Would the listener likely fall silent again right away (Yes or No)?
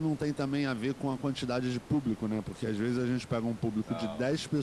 Yes